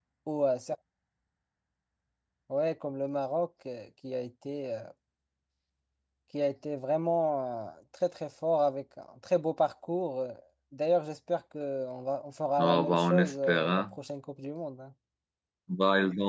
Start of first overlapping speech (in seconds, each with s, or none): 12.6 s